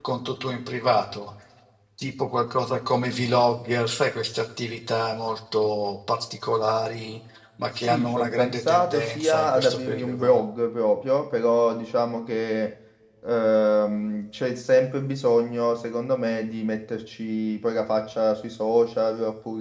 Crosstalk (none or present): present